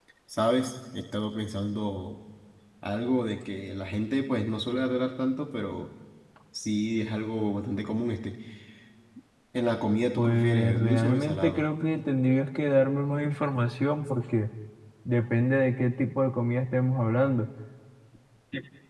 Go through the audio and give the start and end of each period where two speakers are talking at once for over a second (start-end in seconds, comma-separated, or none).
10.2-11.6